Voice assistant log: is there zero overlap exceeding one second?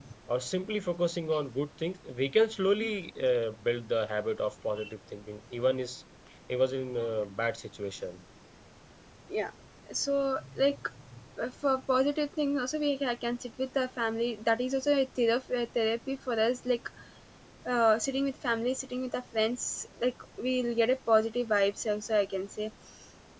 Yes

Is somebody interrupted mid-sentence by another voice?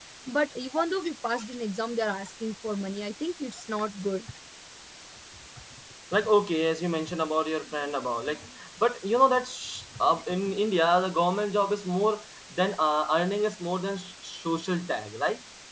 No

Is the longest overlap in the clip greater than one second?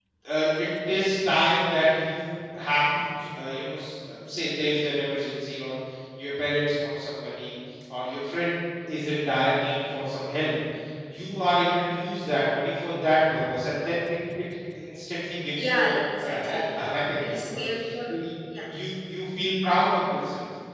Yes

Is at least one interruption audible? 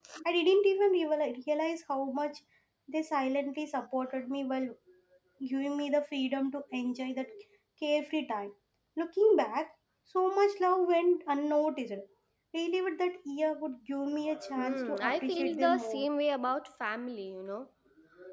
Yes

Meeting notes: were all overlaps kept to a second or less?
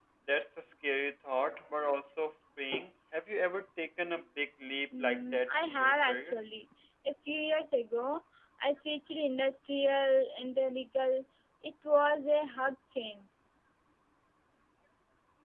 No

